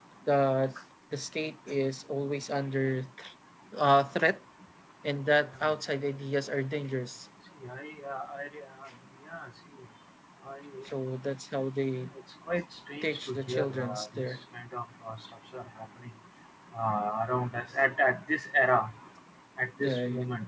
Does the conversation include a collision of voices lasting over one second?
Yes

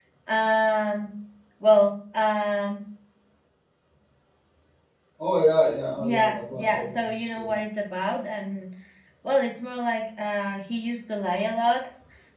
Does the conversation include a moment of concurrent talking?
Yes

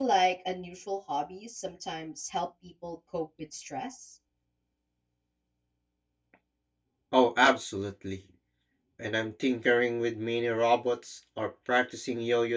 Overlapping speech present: No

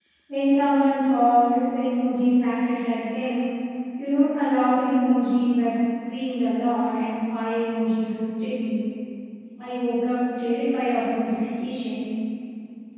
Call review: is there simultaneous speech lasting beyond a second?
No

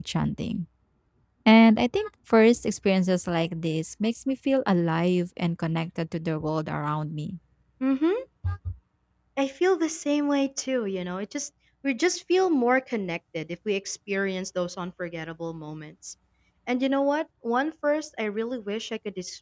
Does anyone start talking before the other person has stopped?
No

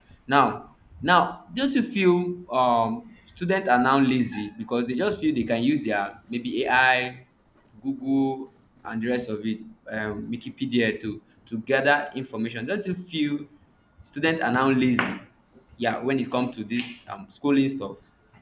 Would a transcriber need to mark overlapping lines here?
No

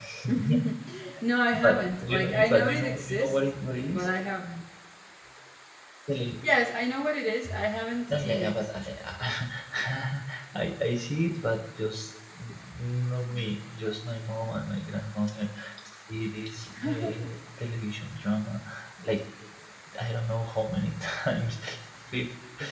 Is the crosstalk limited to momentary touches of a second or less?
No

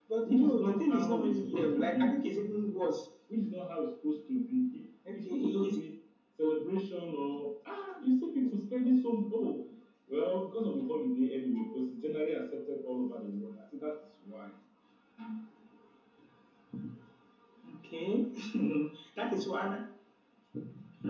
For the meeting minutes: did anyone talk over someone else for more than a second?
Yes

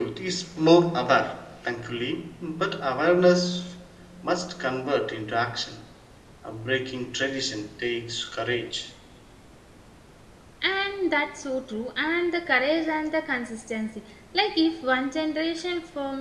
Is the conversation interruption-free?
Yes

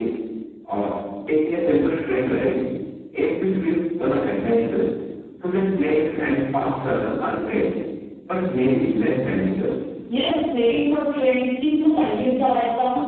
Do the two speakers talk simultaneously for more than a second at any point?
No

